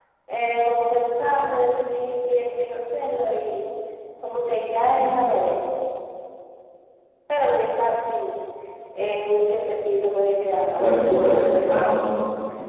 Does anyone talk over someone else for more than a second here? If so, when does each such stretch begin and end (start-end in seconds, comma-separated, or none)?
10.8-12.0